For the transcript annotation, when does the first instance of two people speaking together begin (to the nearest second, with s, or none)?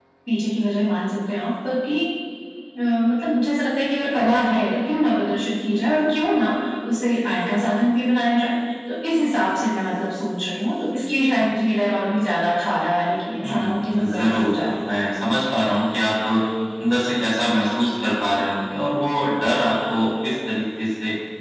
13 s